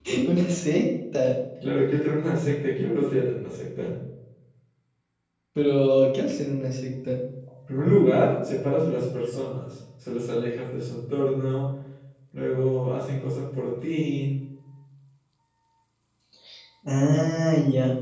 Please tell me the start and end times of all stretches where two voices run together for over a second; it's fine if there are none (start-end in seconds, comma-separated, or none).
none